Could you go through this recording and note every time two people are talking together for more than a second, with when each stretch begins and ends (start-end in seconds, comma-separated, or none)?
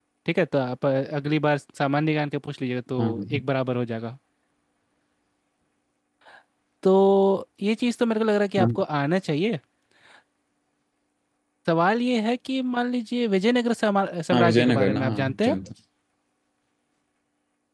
14.3-15.6